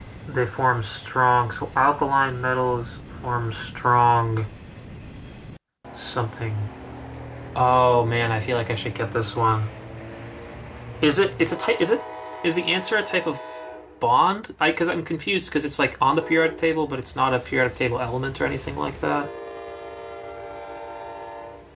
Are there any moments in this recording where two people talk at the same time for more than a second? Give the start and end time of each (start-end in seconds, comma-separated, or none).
none